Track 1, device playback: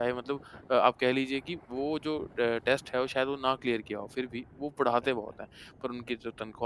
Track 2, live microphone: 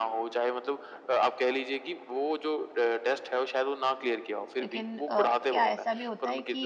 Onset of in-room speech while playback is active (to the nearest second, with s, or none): 5 s